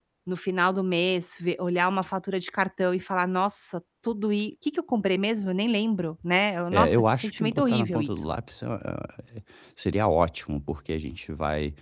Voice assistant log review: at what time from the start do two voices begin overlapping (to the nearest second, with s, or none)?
7 s